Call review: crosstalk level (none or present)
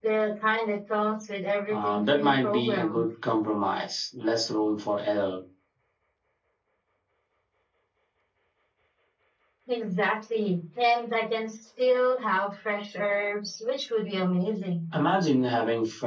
present